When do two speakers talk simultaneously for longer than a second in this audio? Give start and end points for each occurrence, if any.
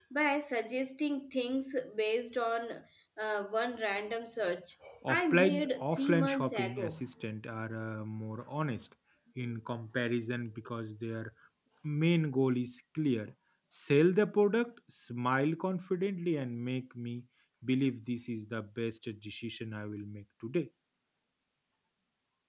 5.1-7.0

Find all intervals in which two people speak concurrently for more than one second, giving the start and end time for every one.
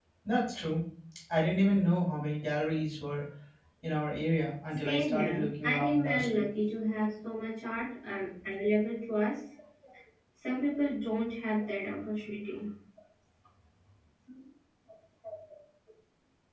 4.8-6.4

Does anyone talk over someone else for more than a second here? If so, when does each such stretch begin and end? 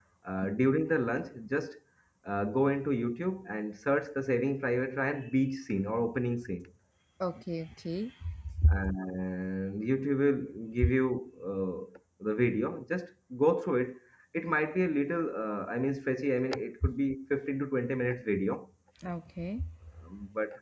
none

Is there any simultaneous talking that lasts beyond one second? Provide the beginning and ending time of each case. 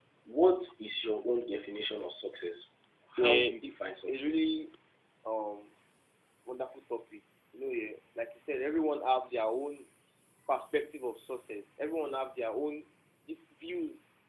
3.2-4.5

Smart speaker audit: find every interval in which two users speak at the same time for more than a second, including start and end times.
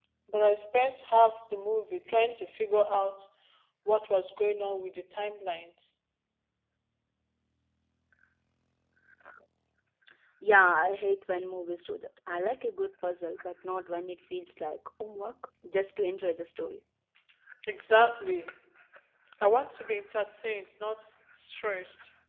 none

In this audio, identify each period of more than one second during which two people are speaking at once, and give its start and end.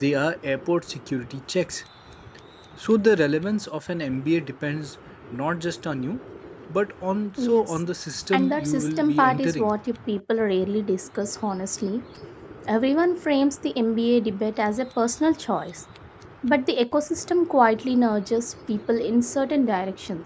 8.3-9.7

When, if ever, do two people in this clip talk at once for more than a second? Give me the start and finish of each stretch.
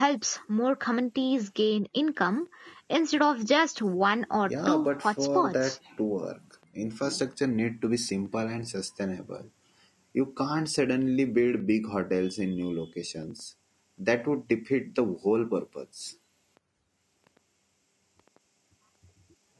4.5-5.8

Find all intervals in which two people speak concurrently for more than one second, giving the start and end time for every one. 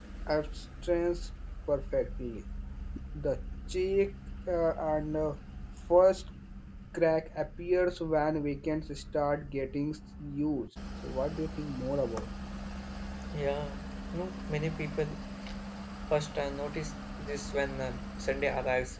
none

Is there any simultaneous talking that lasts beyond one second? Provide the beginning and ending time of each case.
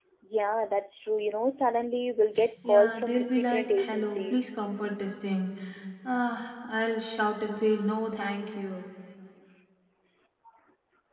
2.7-4.5

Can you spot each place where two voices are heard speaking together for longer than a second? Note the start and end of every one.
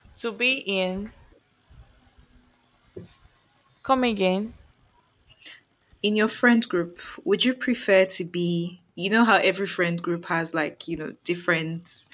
none

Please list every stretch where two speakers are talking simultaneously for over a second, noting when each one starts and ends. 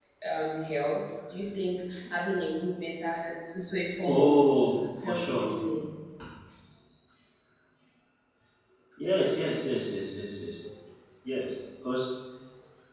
none

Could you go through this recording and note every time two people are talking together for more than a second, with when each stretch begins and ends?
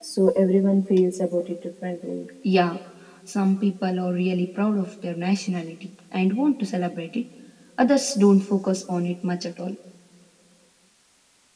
none

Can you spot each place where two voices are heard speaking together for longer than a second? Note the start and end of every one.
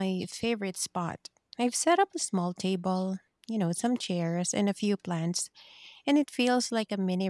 none

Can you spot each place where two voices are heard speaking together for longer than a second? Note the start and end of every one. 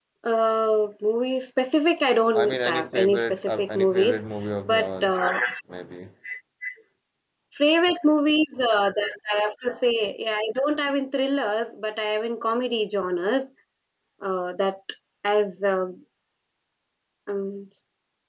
2.4-4.2

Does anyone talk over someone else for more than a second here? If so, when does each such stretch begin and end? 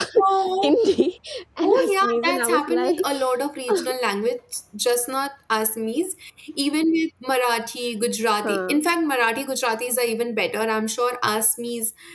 1.6-3.0

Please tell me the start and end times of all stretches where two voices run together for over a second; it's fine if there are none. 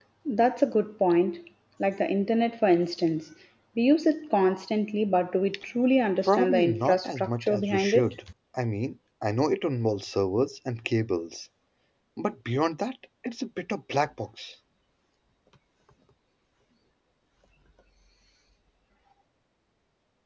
6.2-8.1

